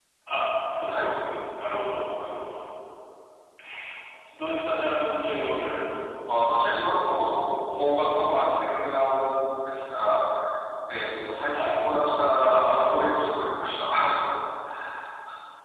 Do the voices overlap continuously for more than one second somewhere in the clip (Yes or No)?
No